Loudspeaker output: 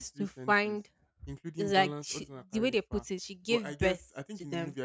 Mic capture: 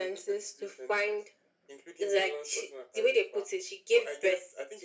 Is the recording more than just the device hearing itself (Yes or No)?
No